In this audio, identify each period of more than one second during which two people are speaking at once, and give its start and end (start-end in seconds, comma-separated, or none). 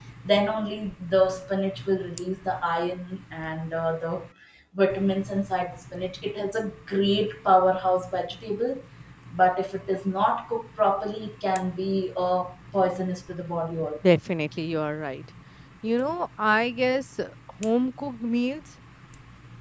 none